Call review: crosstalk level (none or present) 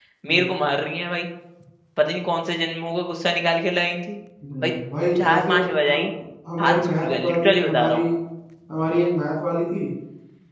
present